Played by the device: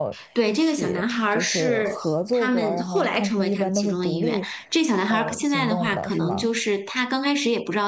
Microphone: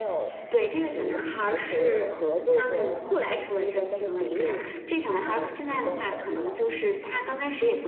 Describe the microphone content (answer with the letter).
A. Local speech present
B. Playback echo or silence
B